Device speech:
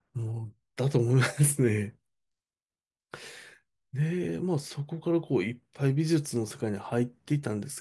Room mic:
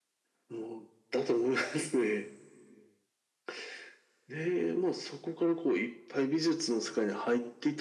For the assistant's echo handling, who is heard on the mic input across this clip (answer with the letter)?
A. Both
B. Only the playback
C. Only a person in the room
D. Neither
B